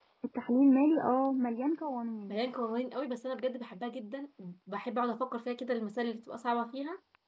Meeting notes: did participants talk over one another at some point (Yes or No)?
No